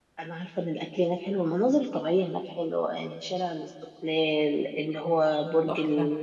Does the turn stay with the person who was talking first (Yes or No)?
Yes